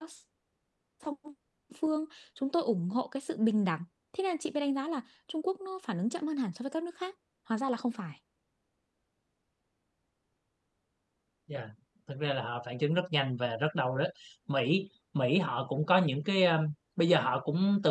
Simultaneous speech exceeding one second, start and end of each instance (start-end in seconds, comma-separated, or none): none